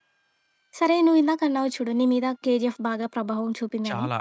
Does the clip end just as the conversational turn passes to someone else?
No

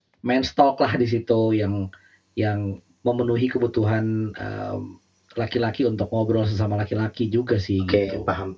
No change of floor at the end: No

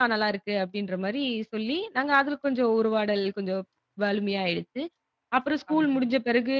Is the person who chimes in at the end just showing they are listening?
Yes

